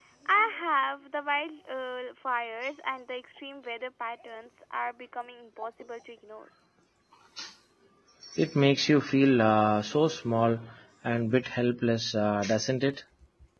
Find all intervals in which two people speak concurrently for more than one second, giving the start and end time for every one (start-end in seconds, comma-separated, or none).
none